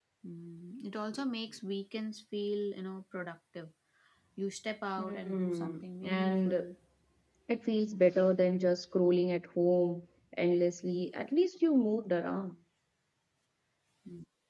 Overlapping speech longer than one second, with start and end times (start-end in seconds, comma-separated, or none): 5.0-6.6